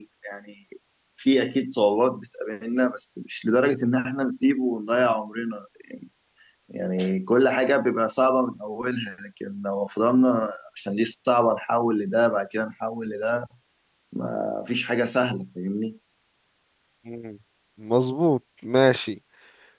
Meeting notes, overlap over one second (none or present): none